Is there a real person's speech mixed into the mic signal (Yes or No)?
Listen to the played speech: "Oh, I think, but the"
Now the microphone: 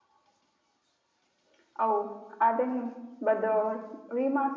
No